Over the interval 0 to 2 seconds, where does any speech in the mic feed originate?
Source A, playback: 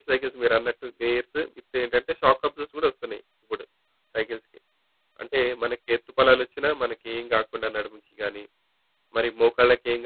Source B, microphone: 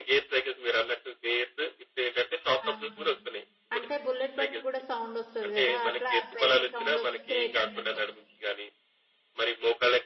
echo only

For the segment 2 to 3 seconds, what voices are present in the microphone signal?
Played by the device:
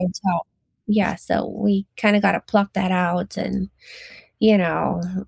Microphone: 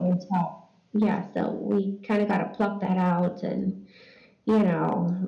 echo only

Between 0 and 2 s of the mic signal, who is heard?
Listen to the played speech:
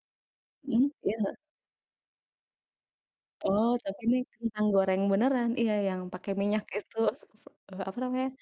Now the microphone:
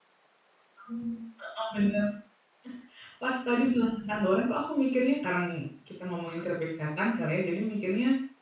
user only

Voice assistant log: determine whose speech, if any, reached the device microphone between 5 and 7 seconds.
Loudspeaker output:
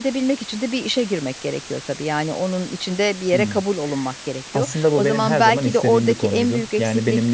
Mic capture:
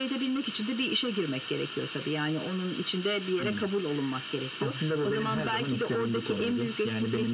echo only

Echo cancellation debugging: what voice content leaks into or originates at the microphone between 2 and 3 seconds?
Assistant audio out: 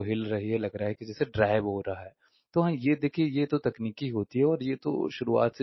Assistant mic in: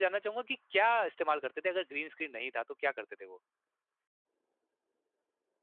user only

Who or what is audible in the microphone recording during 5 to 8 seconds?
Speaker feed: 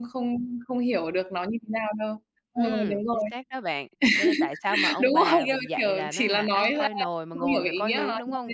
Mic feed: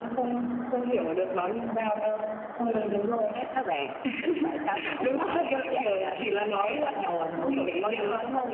echo only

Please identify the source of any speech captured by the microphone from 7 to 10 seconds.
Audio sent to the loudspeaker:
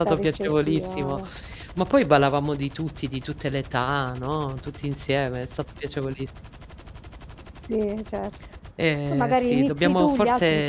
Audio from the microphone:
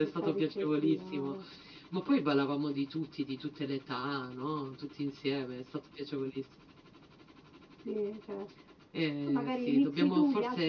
echo only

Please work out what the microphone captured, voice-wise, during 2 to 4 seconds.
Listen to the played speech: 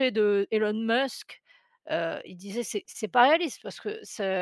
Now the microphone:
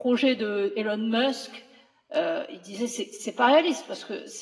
echo only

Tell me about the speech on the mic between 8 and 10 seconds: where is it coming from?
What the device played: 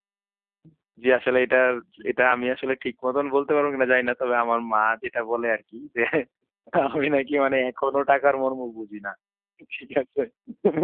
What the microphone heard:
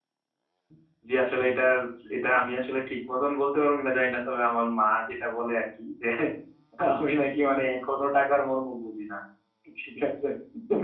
echo only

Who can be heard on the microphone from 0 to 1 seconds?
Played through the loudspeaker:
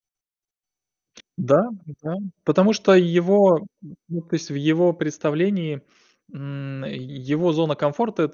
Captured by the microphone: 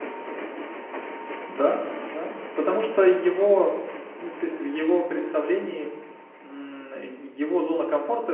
neither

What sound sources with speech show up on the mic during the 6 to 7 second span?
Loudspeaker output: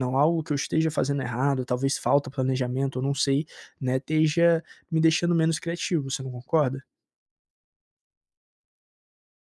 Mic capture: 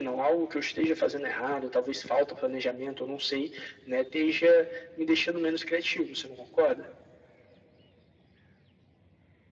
echo only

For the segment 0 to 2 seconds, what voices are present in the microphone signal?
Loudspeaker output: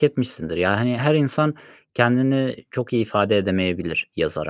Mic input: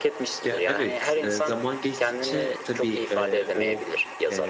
both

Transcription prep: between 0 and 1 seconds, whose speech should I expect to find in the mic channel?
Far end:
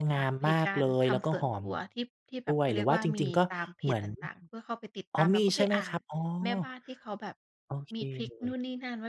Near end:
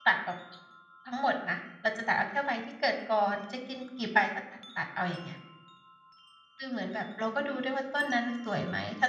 user only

